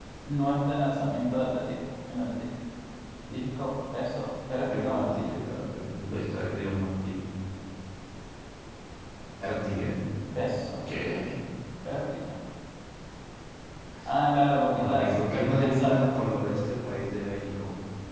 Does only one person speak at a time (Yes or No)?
No